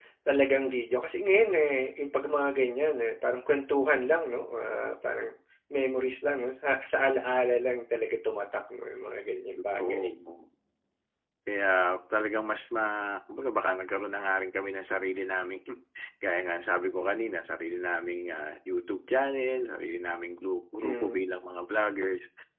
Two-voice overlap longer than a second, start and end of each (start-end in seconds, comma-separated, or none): none